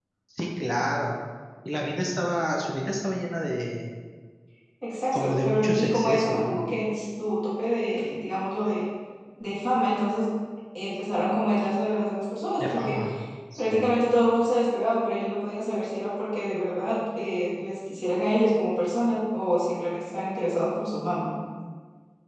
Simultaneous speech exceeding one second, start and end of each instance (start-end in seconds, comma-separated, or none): 5.1-6.6